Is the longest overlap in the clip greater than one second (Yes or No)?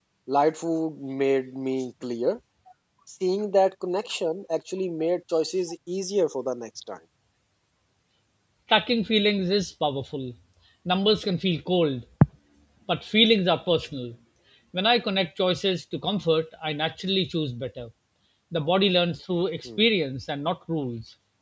No